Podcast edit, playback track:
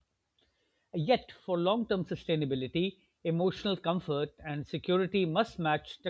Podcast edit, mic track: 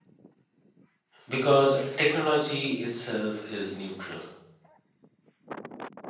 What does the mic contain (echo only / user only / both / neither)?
user only